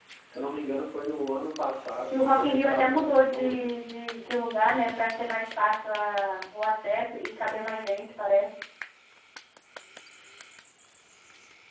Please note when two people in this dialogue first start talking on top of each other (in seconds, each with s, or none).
2.1 s